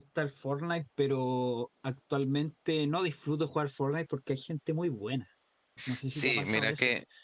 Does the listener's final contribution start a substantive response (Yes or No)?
Yes